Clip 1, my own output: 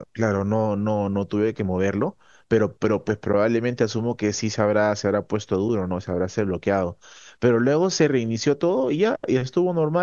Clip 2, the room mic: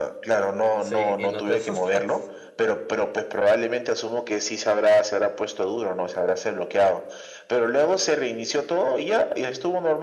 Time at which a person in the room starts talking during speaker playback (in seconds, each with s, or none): 0.8 s